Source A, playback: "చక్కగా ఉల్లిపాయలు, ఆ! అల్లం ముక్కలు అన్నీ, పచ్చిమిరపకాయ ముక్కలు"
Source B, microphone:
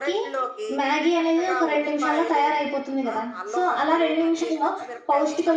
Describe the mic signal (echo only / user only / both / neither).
both